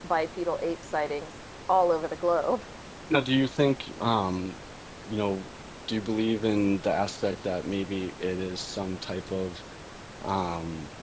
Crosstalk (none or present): none